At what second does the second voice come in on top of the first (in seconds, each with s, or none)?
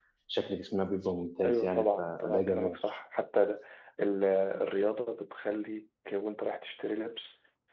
1.4 s